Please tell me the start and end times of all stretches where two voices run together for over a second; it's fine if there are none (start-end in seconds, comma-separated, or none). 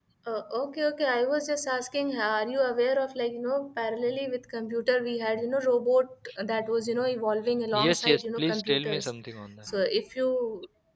7.8-9.1